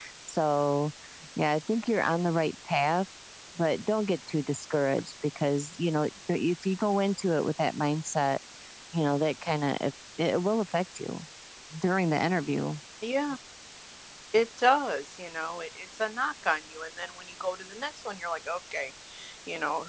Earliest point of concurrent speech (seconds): none

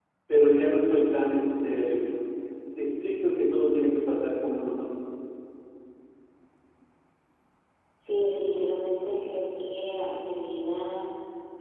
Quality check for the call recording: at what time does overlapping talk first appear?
none

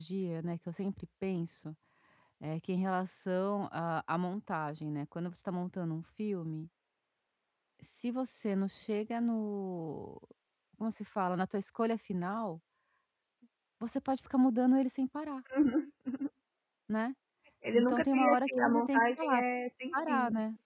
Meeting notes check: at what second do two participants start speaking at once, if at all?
17.7 s

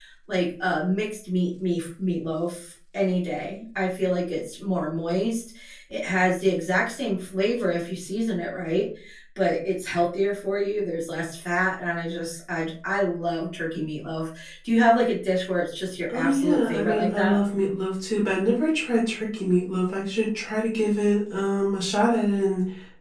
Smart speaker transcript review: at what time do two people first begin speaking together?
16.1 s

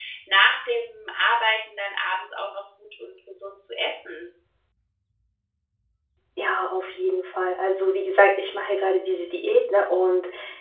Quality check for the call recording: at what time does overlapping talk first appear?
none

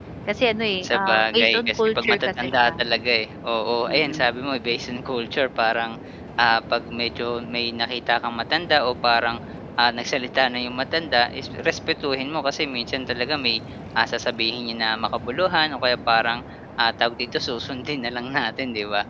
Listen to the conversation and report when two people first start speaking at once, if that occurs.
0.8 s

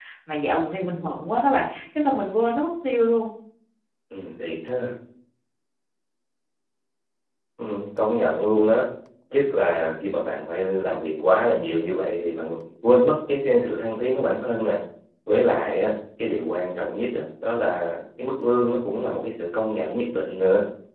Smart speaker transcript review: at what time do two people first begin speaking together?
none

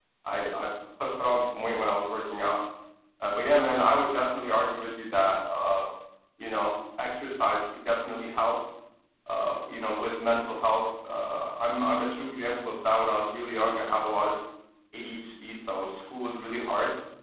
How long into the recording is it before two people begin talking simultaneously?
none

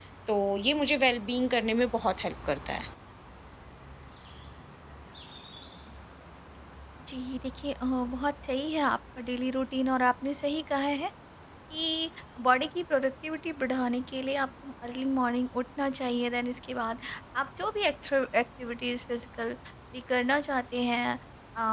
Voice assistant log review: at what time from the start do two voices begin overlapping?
none

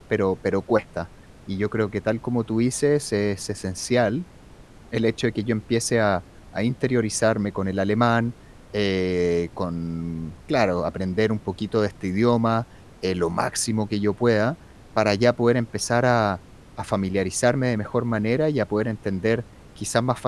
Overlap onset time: none

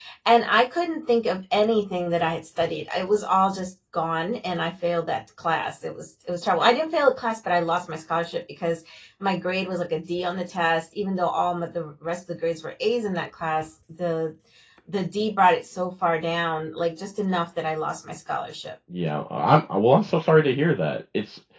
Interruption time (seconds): none

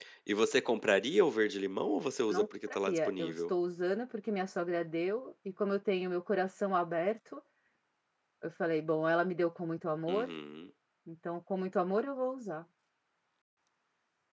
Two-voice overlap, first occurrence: 2.3 s

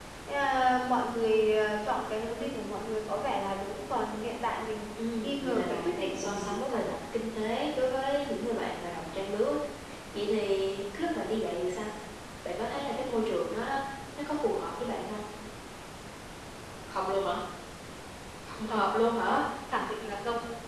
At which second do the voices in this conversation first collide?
5.2 s

